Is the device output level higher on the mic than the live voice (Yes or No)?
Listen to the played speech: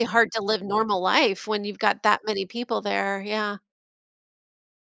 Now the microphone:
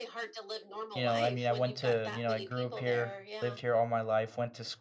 No